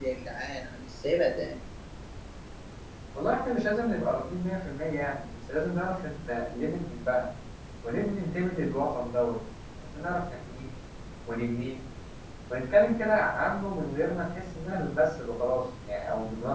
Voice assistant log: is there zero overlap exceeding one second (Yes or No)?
Yes